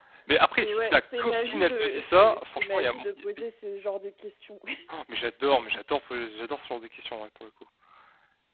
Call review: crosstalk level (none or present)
present